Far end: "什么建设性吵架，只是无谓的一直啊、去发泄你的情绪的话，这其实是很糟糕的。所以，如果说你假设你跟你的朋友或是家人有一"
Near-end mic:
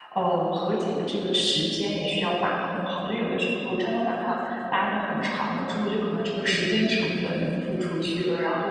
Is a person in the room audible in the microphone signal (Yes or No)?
Yes